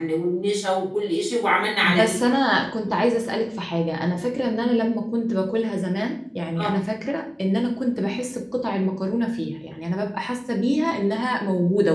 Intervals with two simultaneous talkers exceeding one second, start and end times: none

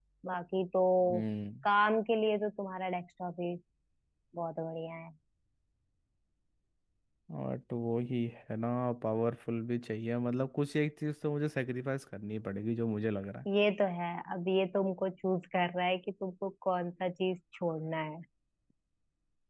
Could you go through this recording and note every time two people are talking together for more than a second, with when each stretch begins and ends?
none

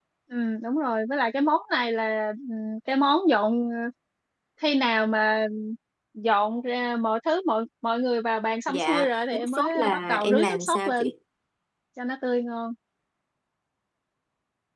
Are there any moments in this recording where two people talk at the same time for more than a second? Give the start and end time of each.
8.7-11.1

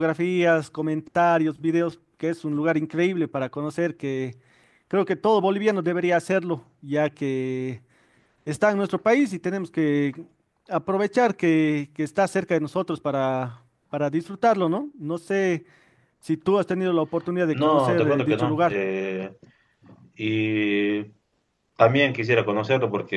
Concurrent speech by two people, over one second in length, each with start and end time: 17.5-18.8

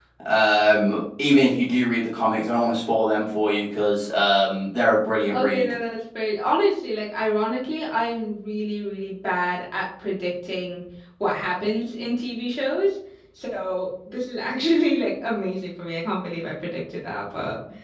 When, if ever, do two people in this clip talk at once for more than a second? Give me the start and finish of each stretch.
none

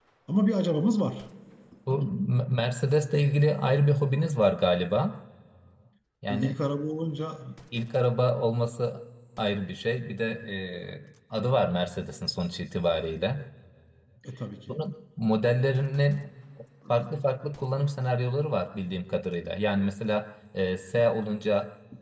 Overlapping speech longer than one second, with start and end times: none

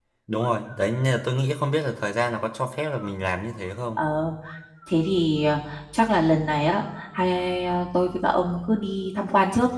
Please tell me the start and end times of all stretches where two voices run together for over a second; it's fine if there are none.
none

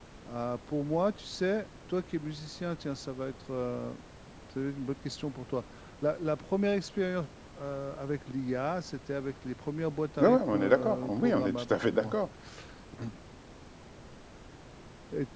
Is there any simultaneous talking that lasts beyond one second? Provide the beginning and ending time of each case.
10.2-12.2

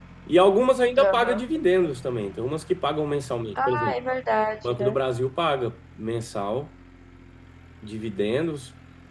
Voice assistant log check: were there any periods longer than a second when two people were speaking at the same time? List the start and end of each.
none

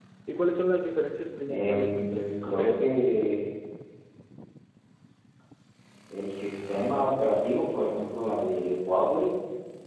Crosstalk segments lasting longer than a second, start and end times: 1.5-3.0

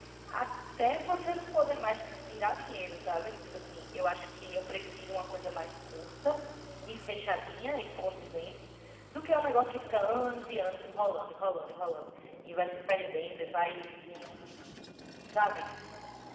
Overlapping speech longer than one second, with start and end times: none

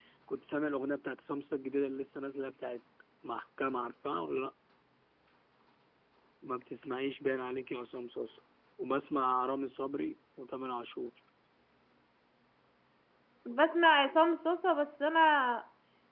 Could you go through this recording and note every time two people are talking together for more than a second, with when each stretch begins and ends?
none

